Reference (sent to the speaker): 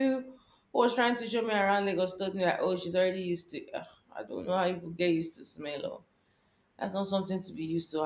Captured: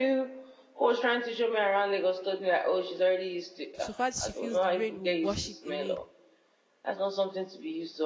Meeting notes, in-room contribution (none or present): present